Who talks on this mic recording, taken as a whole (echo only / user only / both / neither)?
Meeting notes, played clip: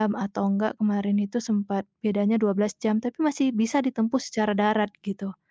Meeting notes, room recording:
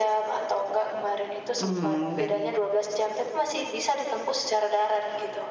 both